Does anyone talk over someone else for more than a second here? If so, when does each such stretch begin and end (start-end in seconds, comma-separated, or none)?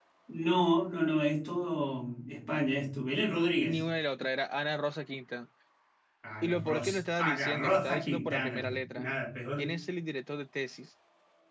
6.4-9.1